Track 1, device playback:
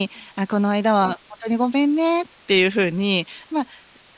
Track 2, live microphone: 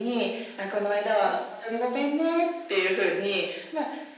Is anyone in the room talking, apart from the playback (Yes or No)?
No